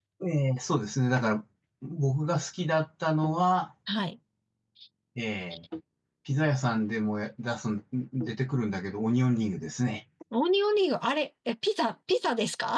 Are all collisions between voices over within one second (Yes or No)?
Yes